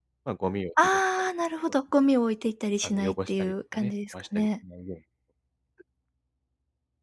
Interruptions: present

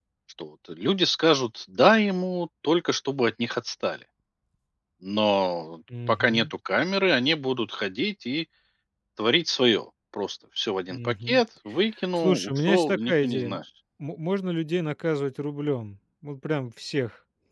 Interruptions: present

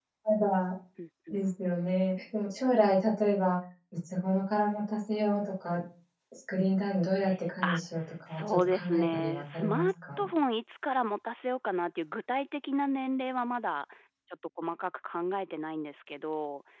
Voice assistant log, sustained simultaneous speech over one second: present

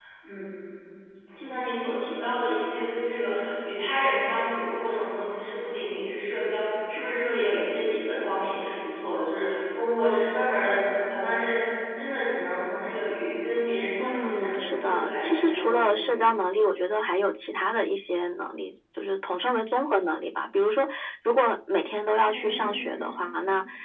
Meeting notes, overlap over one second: present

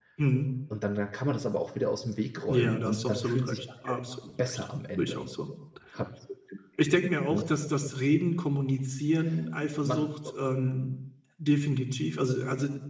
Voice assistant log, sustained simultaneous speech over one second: present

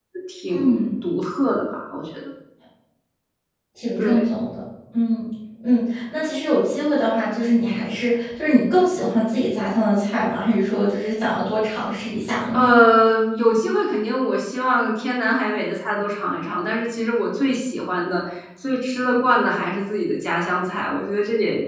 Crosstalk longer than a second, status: none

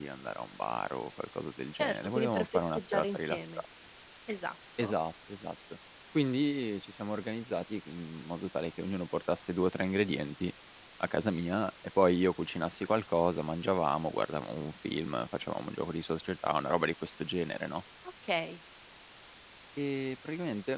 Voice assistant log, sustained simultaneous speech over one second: present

